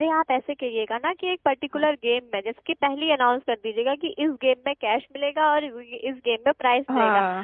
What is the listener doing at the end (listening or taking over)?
listening